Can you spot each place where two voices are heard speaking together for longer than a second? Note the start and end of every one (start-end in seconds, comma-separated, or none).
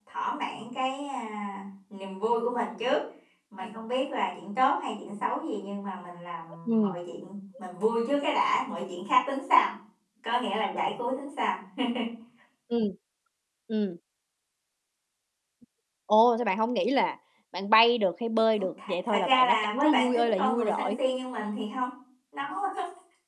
18.6-20.9